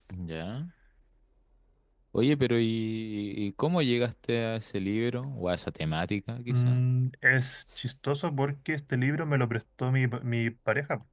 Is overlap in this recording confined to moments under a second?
Yes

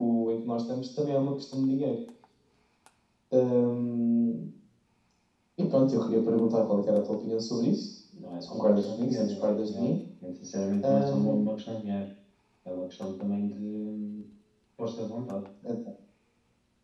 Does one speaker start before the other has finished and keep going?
Yes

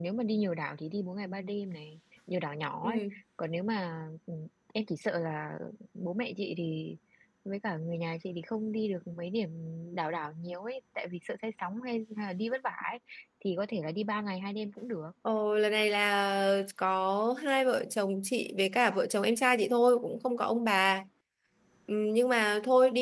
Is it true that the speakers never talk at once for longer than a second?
Yes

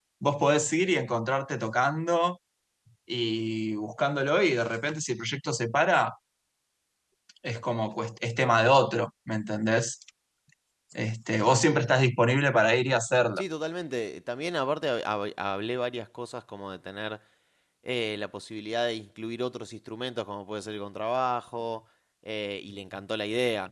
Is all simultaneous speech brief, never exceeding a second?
Yes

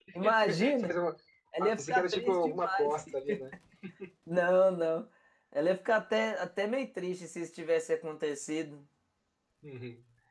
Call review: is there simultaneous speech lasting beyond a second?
Yes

